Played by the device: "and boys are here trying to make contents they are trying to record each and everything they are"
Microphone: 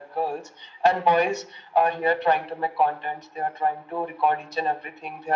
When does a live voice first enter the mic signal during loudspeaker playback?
none

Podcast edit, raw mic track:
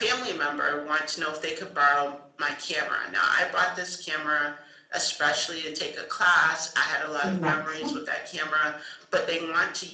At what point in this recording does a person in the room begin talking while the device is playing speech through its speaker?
7.1 s

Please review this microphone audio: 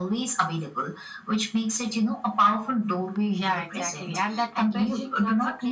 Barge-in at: none

